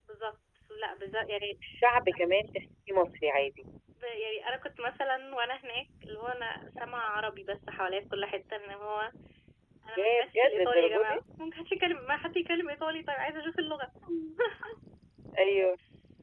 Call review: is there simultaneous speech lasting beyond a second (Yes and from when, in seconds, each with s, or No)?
Yes, from 10.0 s